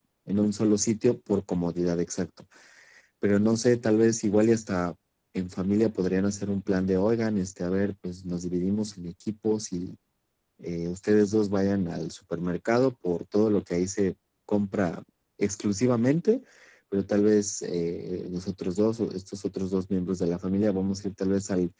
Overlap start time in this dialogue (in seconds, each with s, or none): none